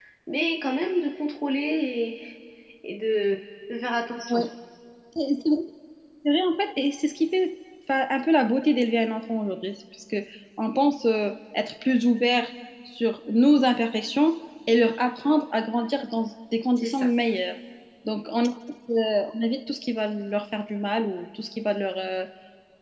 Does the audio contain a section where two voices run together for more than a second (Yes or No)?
No